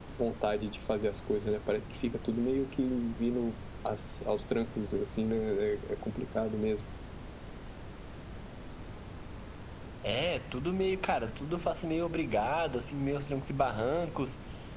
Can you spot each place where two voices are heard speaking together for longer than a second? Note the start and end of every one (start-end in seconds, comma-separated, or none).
none